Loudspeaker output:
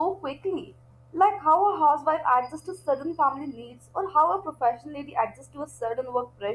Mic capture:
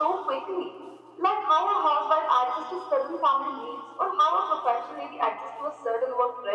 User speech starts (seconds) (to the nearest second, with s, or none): none